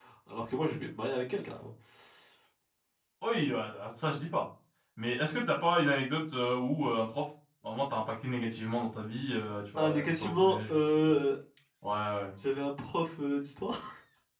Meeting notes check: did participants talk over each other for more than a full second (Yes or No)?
Yes